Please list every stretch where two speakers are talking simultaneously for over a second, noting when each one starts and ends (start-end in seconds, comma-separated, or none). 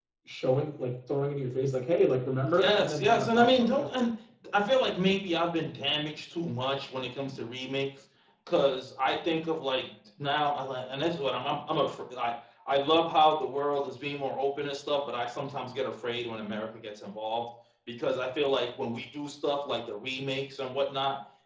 2.5-3.9